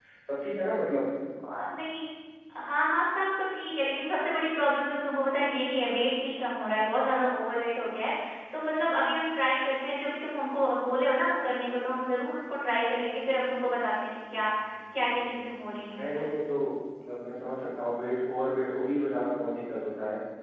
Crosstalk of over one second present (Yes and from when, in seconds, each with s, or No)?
No